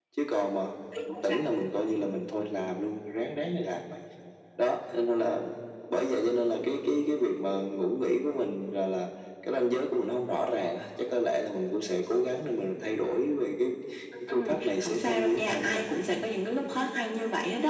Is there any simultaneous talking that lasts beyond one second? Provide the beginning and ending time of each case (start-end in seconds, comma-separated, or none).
14.3-16.2